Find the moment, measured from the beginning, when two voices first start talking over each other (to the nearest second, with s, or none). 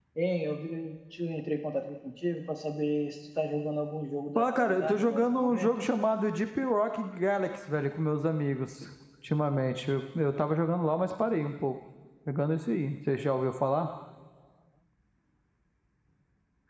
4 s